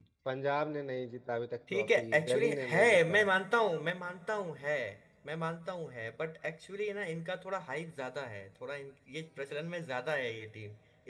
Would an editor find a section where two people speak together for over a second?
Yes, from 1.7 s

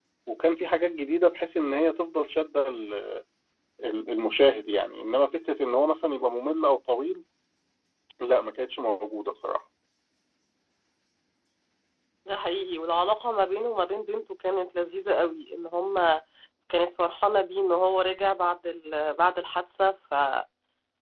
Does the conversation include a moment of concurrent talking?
No

